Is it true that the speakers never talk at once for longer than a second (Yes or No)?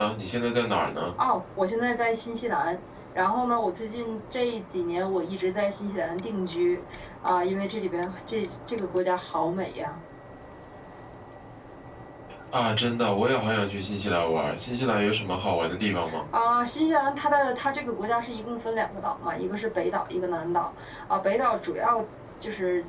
Yes